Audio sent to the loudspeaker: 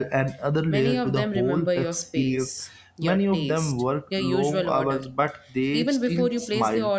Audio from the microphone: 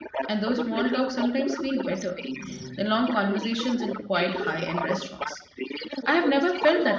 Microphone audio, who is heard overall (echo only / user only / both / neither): both